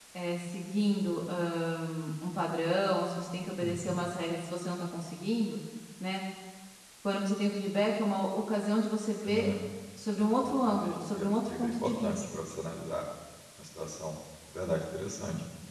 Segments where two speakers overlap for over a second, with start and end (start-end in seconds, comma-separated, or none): 10.4-12.4